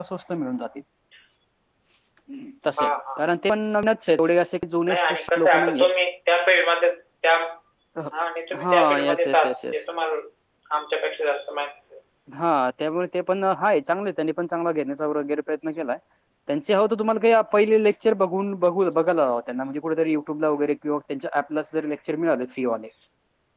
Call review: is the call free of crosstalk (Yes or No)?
No